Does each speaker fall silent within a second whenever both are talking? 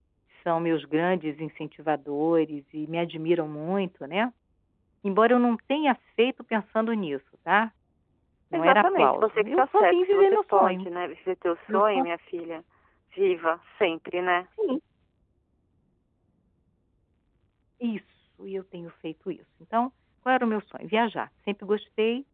No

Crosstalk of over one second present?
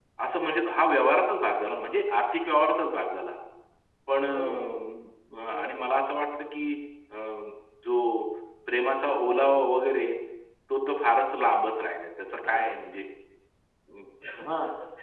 No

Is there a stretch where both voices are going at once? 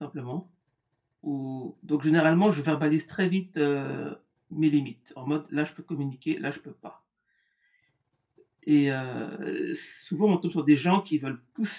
No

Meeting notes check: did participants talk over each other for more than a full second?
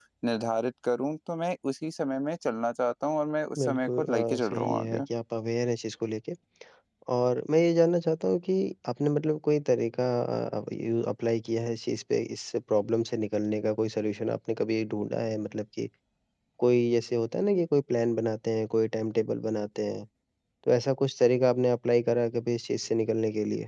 Yes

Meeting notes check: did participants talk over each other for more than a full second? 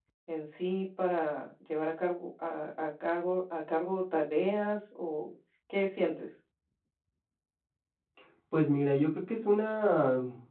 No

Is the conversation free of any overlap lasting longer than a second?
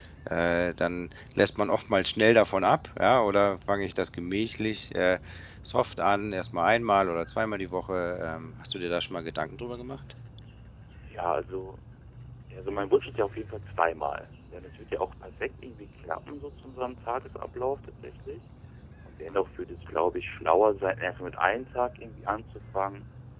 Yes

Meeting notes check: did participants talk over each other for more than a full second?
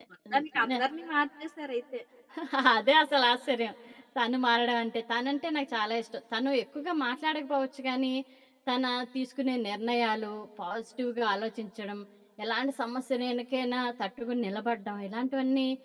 No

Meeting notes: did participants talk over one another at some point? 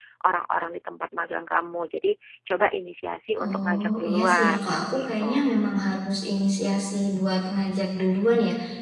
Yes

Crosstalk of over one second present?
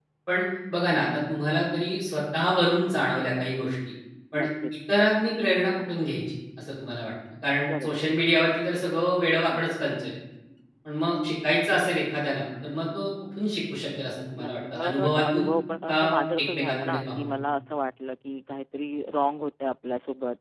Yes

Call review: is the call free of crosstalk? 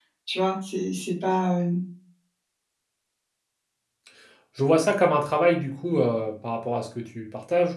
Yes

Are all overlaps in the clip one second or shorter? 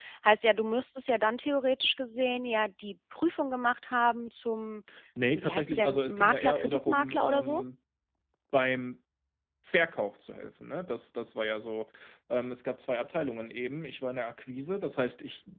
No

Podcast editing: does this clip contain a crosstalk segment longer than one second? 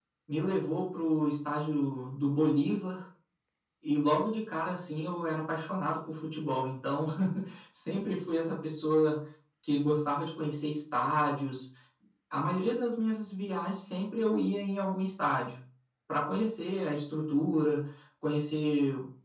No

